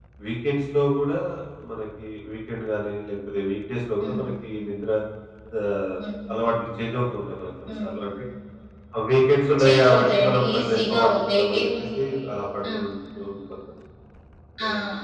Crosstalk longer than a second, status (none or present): present